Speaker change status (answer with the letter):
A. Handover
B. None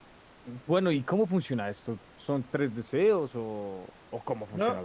A